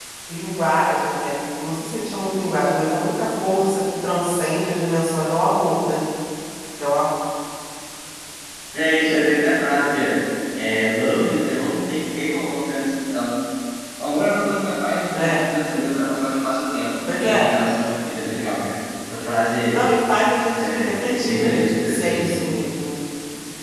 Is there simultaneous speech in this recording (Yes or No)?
Yes